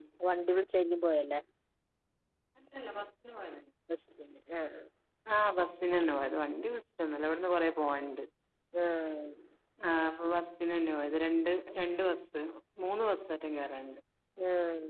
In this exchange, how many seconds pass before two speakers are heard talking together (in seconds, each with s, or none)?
none